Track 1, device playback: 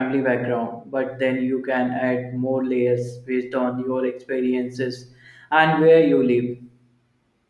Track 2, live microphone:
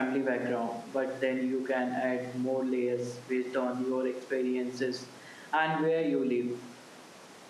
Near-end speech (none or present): none